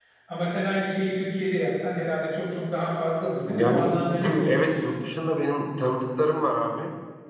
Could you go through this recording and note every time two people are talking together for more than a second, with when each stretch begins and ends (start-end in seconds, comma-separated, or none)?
3.5-4.8